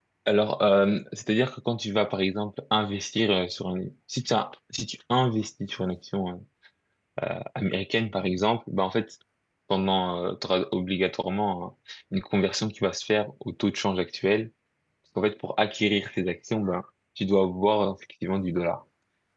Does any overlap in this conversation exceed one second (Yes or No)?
No